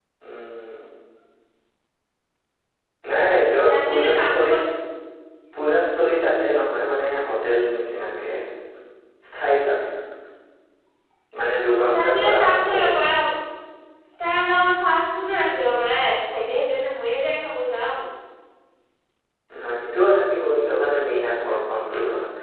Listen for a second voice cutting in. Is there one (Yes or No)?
Yes